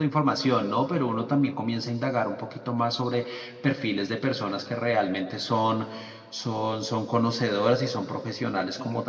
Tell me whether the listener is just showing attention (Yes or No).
Yes